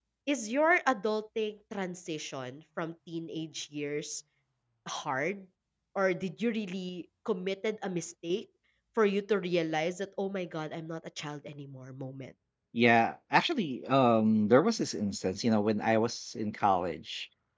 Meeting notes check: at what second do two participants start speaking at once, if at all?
none

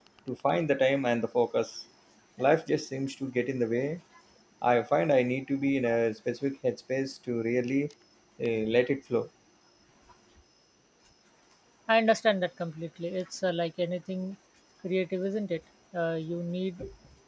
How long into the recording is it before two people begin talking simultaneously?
none

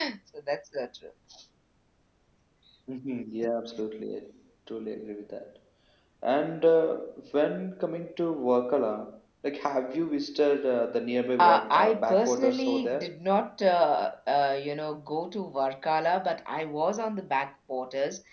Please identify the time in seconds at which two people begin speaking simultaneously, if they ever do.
11.4 s

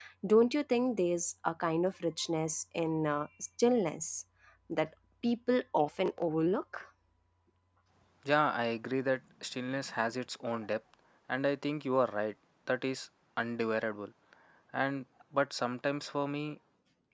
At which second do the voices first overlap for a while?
none

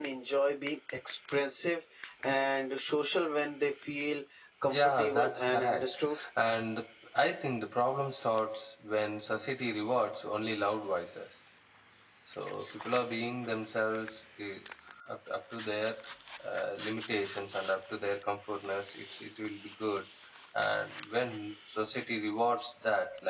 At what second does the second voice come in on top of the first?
4.6 s

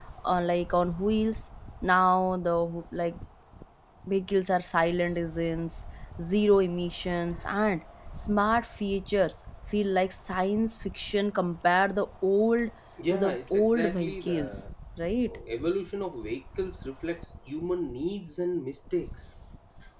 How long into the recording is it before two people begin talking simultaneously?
13.1 s

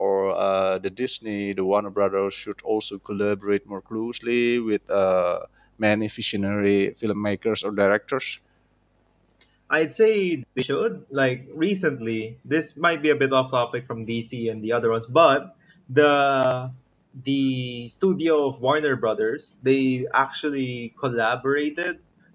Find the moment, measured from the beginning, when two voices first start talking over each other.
none

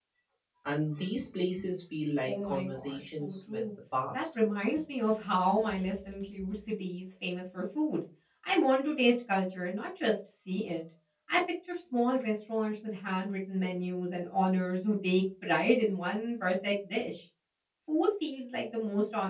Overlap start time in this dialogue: 2.2 s

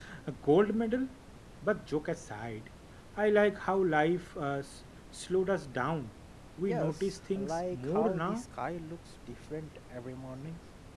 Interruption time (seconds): 6.6 s

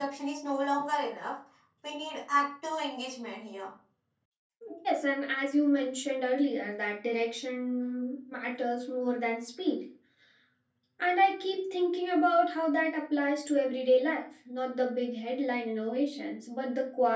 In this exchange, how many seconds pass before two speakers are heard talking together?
none

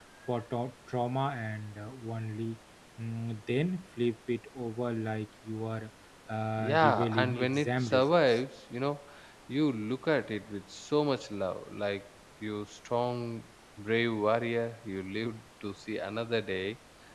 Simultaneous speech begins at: 6.6 s

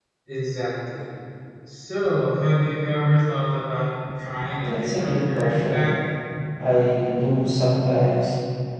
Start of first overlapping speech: 4.6 s

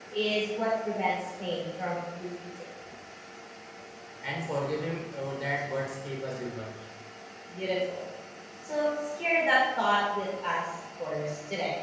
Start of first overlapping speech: none

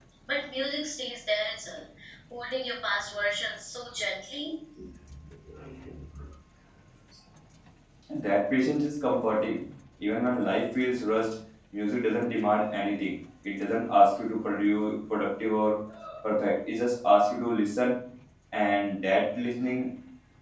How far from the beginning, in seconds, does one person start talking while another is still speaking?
none

